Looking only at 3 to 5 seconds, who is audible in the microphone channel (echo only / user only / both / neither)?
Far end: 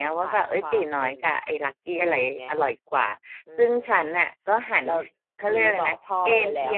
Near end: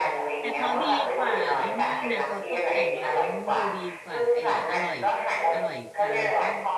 both